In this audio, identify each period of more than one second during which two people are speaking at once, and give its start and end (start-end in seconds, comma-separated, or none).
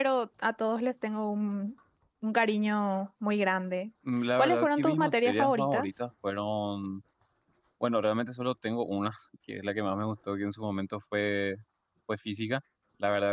4.4-5.9